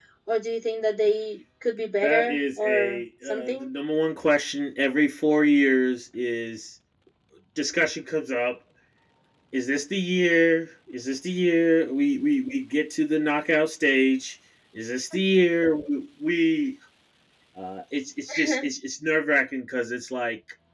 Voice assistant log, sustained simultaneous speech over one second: present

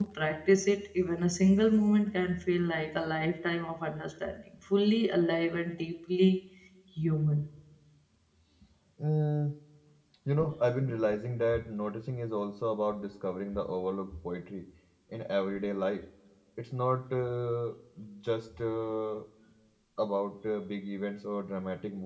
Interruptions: none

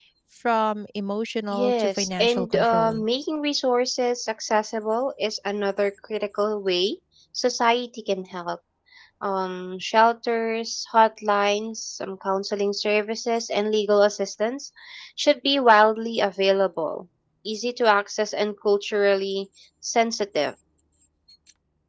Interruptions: present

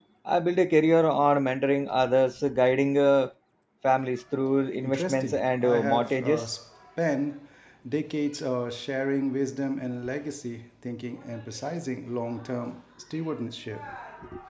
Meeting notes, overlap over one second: present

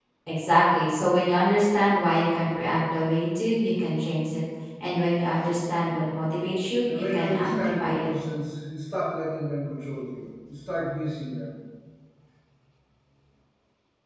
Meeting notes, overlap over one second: present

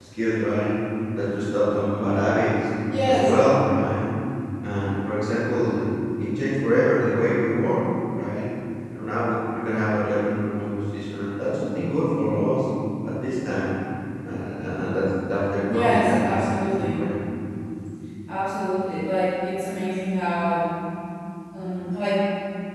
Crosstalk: present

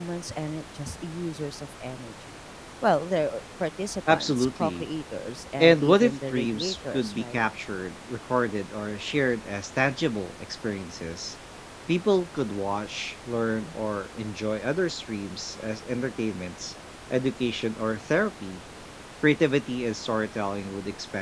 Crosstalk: present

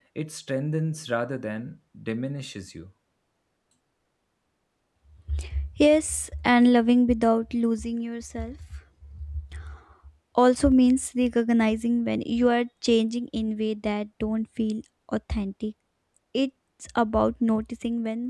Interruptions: none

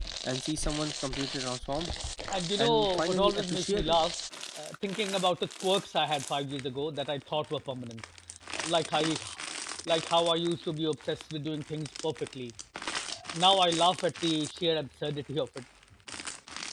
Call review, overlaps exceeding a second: present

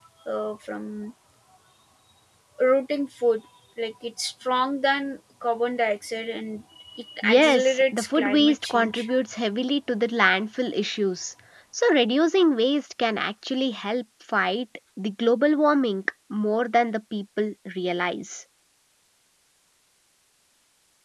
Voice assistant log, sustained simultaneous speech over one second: present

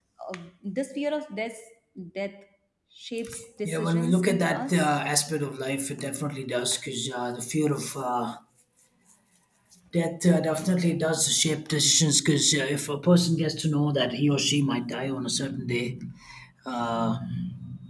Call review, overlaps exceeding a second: present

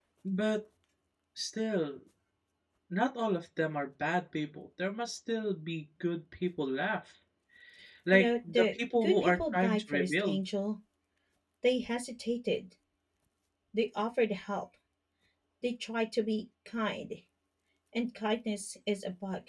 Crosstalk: present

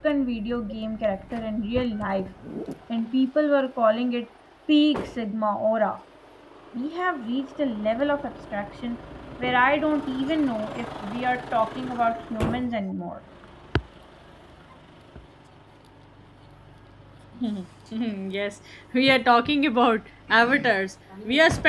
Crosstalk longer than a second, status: none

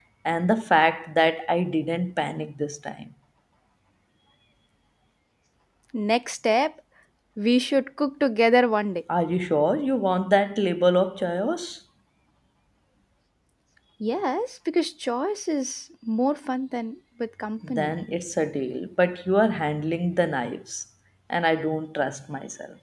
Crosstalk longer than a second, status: none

